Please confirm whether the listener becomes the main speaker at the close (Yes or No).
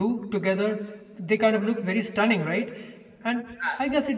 No